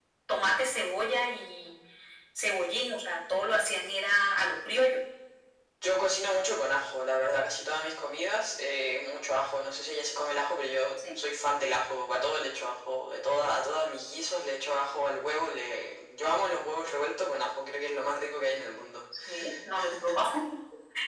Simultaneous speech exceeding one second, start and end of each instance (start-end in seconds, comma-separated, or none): none